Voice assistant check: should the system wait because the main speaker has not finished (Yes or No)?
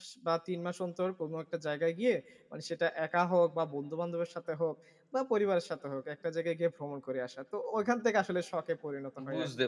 No